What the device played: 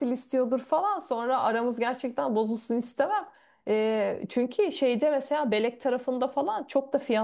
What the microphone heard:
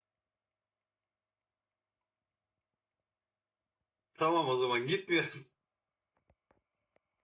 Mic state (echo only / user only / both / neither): user only